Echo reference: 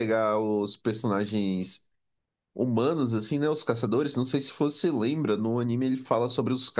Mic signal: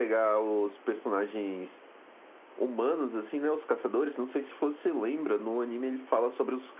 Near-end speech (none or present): none